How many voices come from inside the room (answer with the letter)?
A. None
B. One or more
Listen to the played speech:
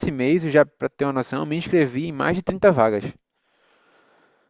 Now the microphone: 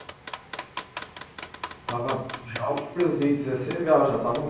B